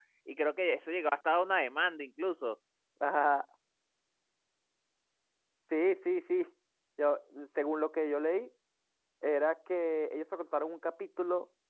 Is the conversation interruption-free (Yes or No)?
Yes